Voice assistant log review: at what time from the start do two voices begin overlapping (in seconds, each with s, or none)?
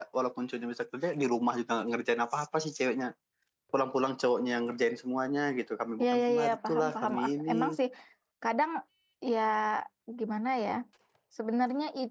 6.0 s